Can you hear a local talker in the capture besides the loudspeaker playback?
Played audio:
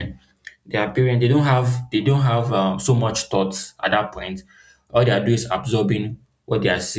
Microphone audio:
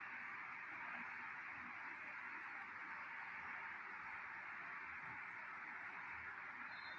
No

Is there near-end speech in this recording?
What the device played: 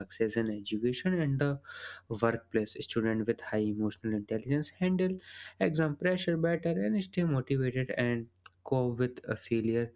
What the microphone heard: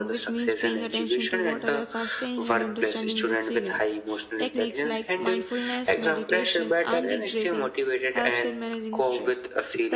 Yes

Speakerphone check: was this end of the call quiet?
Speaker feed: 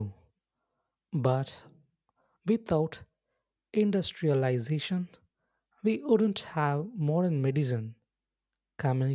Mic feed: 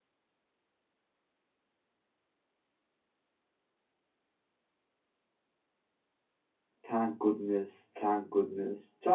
No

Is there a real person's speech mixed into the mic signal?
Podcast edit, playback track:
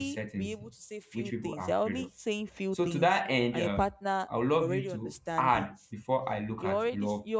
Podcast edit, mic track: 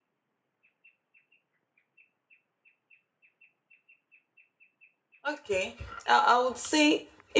Yes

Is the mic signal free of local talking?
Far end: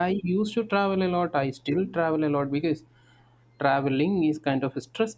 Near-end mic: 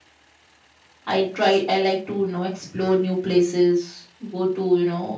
No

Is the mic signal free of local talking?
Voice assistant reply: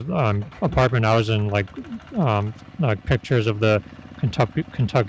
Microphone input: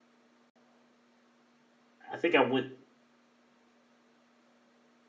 No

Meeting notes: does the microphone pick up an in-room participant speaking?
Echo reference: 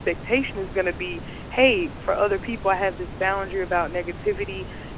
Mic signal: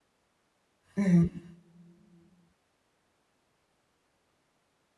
Yes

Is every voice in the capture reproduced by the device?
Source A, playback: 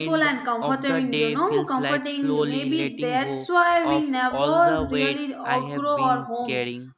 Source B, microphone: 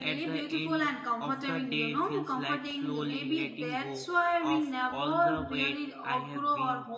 Yes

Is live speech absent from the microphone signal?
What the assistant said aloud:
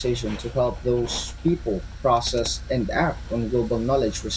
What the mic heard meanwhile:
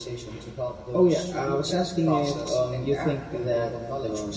No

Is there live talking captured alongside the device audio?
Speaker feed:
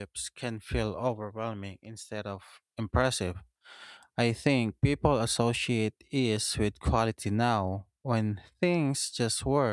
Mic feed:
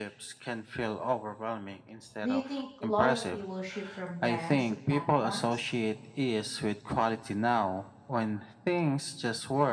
Yes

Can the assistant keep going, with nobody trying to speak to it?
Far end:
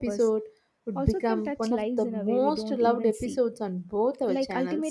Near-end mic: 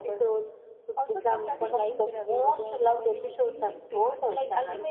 No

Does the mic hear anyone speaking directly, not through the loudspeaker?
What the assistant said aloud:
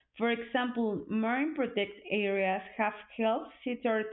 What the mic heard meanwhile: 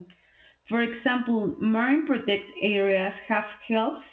No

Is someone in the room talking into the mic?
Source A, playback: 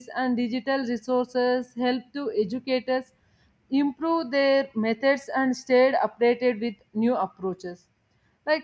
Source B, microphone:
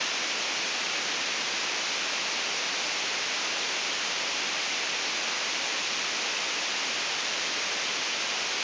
No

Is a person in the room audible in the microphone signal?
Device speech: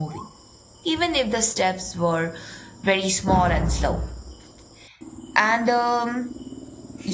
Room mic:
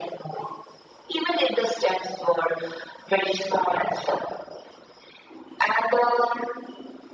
No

